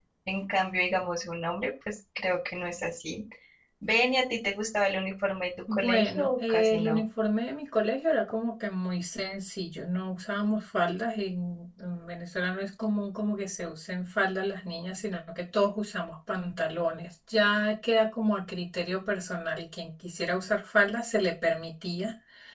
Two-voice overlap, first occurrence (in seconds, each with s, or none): 5.7 s